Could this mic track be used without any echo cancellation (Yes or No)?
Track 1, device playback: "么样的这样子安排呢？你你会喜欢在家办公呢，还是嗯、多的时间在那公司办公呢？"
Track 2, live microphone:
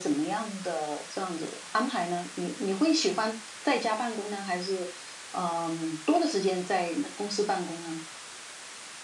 No